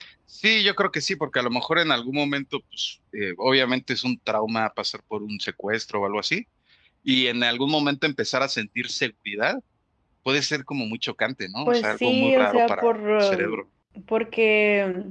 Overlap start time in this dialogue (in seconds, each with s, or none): 11.7 s